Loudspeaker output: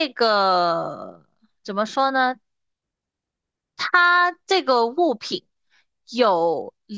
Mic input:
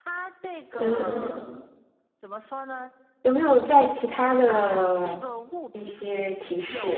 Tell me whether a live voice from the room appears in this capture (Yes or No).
Yes